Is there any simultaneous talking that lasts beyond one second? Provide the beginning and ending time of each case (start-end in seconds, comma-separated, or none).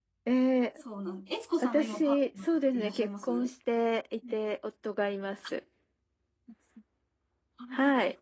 1.6-3.5